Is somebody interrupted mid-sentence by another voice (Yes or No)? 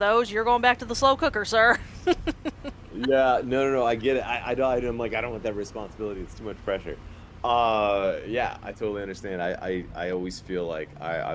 No